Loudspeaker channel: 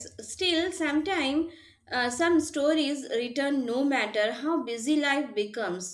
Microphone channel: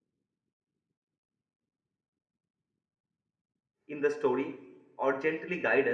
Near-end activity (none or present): present